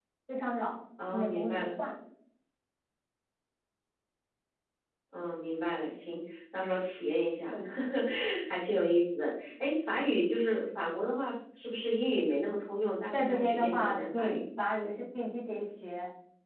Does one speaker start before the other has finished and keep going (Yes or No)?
Yes